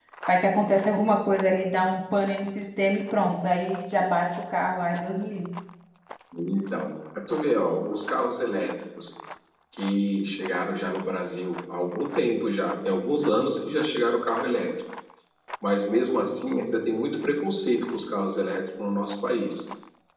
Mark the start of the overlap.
none

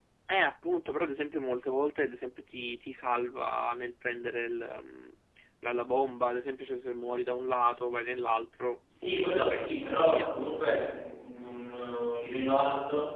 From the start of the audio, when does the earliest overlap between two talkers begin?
8.9 s

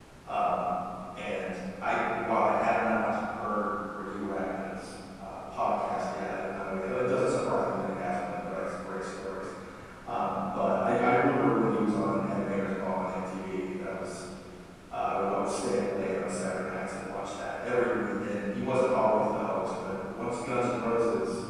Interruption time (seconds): none

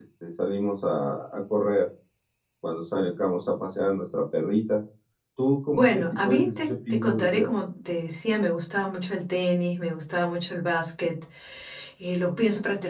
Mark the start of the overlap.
5.7 s

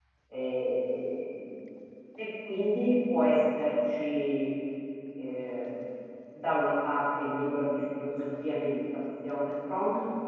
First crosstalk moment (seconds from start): none

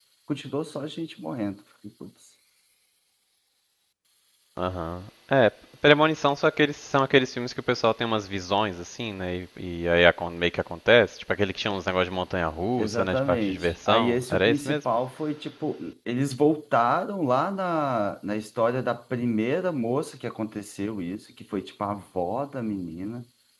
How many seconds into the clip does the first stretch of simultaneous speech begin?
12.8 s

